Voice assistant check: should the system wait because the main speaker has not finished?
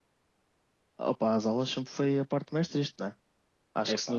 Yes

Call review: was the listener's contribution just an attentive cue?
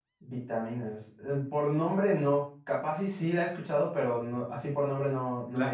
No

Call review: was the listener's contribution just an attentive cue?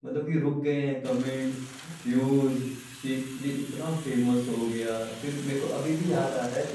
Yes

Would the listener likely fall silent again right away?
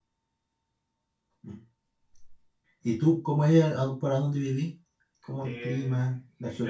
No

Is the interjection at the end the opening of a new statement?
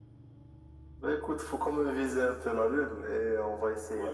Yes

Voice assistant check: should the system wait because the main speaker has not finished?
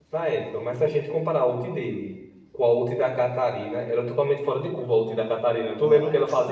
No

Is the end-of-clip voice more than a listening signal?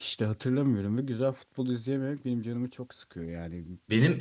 Yes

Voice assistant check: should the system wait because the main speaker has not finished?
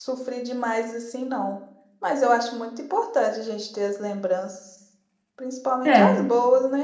Yes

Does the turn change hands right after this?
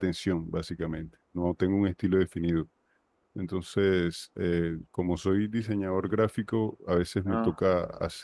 No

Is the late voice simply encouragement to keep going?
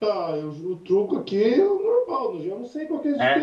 Yes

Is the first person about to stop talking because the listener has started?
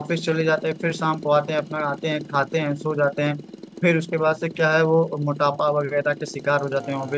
Yes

